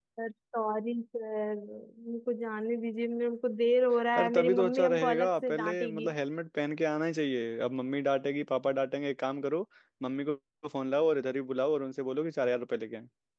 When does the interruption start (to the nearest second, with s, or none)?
4 s